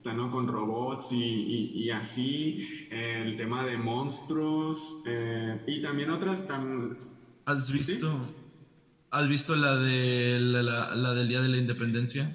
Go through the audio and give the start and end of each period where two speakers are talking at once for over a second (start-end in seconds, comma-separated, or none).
none